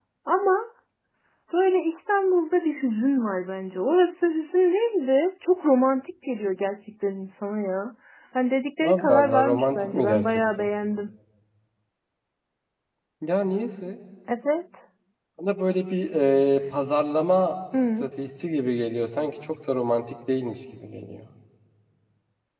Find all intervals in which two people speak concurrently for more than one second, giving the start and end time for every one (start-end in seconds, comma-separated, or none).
8.8-10.7